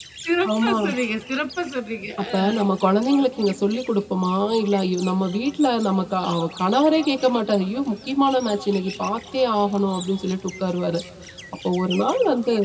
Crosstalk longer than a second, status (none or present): none